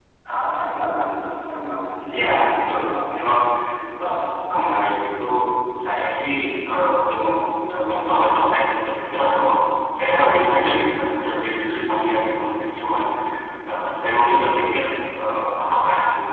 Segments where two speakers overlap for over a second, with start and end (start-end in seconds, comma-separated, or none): none